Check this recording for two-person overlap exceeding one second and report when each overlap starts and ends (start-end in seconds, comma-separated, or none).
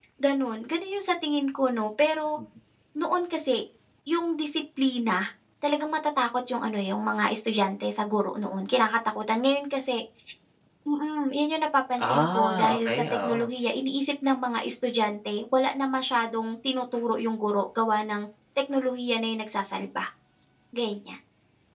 12.1-13.4